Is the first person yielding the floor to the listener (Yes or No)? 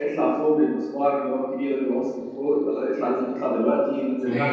Yes